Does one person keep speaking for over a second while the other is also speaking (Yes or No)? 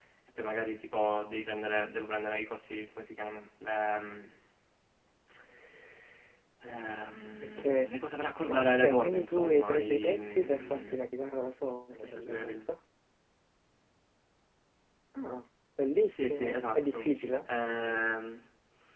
Yes